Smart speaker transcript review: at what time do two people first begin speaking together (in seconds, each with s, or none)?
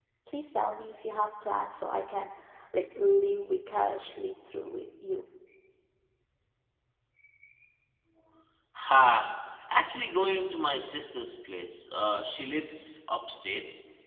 none